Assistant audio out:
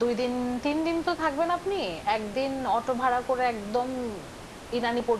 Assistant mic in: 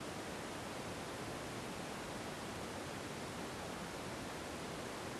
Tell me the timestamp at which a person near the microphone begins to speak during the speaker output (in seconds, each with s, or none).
none